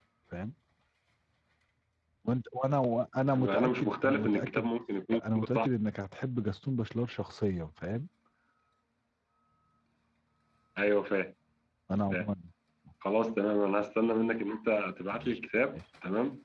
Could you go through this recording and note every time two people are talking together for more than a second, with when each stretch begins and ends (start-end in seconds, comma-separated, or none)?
3.3-4.7